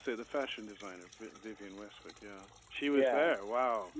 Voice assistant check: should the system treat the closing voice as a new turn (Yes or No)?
Yes